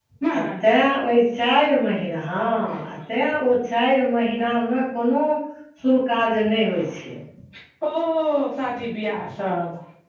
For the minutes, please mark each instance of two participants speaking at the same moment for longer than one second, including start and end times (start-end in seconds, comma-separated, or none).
none